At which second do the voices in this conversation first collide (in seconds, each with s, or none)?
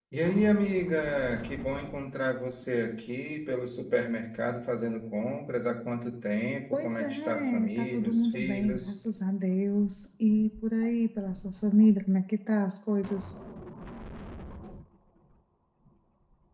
6.7 s